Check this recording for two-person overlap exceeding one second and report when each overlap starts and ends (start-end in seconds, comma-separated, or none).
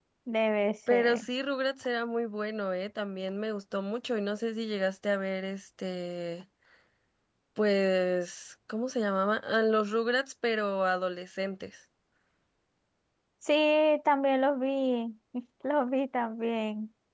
none